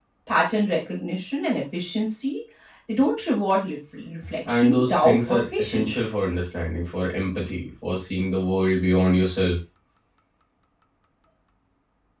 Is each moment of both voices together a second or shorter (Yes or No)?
No